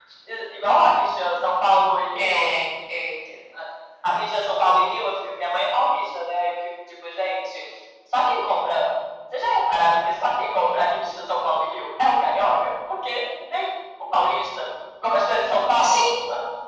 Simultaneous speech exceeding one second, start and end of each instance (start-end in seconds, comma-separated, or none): none